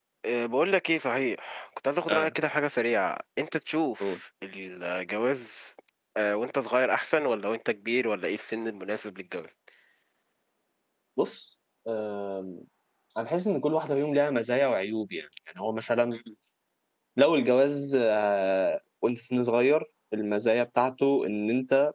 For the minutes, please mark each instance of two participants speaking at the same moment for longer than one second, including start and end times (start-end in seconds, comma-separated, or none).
none